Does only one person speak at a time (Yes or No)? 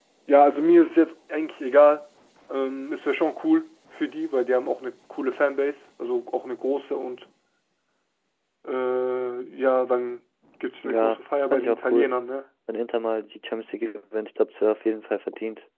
No